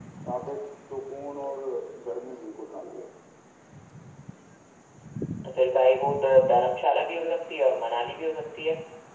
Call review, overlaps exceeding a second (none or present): none